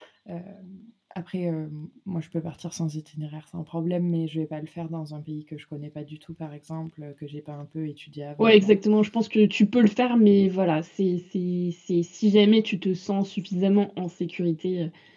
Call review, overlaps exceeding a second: none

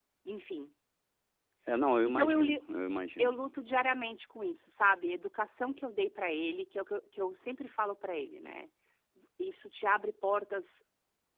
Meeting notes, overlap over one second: none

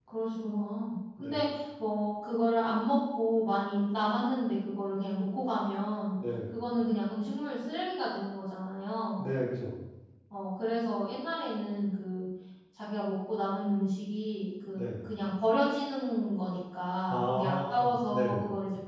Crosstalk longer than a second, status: present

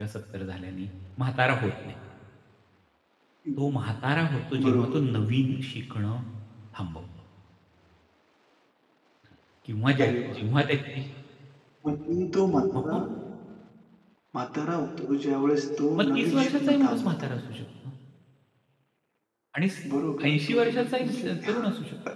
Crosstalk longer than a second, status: present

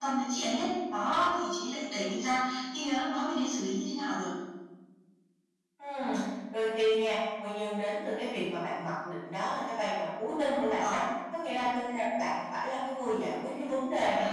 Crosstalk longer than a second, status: none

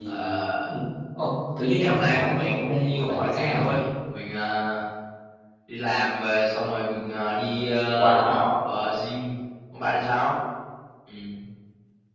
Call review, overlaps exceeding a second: present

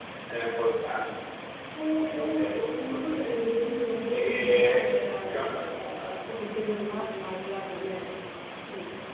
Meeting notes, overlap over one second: present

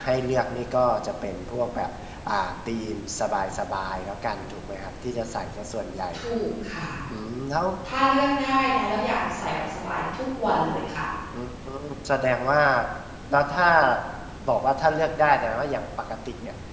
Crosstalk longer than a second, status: none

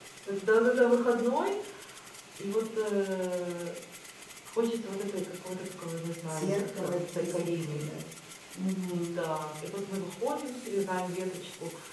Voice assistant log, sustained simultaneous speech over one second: present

